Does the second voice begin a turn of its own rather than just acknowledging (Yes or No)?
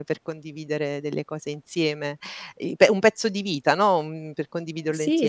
Yes